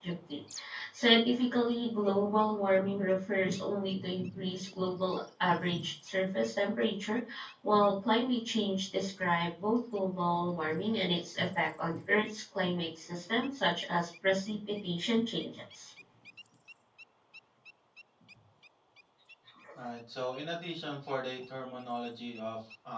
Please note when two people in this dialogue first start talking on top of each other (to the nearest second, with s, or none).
none